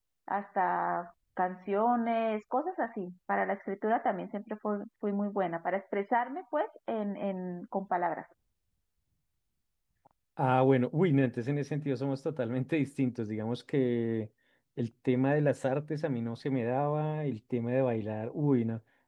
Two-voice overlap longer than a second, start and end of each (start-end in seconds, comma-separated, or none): none